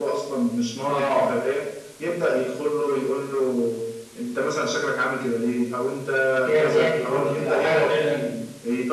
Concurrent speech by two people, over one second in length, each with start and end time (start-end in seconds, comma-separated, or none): 6.5-8.2